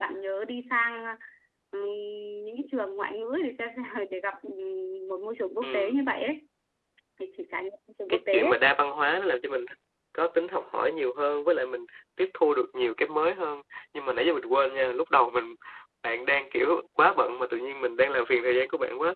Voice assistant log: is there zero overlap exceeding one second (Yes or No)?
Yes